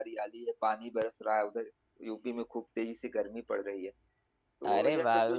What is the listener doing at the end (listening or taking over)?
taking over